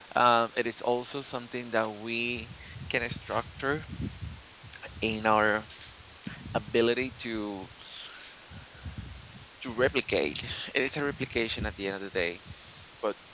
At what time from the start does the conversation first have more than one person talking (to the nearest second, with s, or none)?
none